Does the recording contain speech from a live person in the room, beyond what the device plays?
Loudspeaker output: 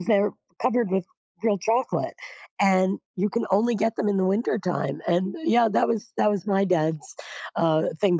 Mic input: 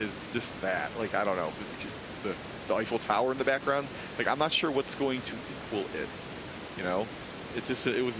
Yes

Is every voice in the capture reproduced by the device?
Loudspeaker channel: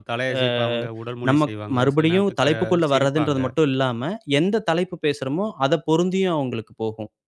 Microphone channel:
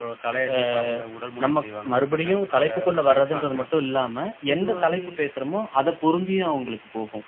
No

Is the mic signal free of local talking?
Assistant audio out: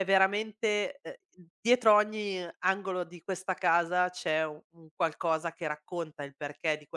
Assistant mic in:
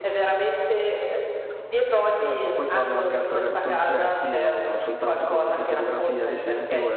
No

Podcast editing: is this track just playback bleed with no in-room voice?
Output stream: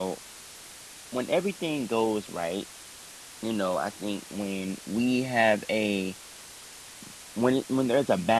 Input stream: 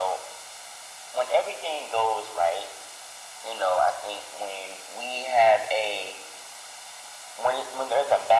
Yes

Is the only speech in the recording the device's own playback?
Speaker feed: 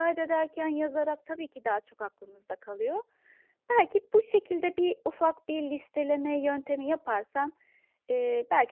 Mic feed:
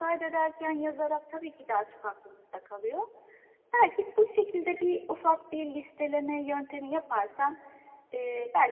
Yes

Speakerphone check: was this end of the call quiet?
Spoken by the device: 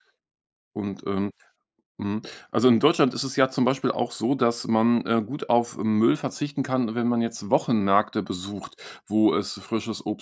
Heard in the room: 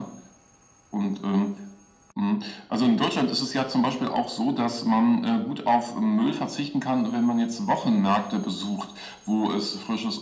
Yes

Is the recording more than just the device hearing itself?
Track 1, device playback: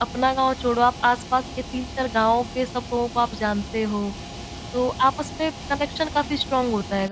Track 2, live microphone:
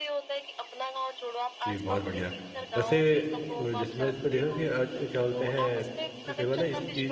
Yes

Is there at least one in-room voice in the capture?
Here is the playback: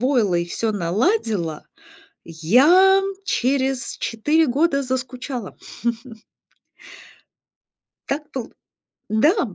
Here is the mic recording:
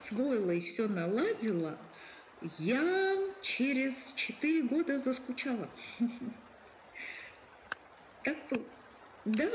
No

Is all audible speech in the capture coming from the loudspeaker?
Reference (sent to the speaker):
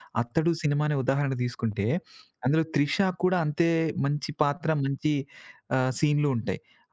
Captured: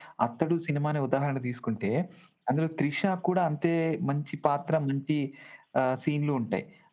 Yes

